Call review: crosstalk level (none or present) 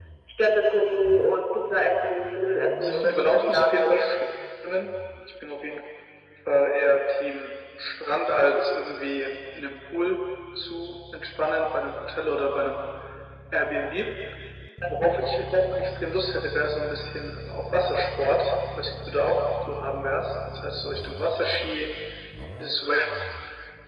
present